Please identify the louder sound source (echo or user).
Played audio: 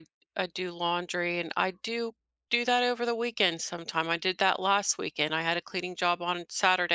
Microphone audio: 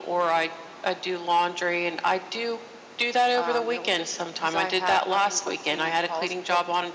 echo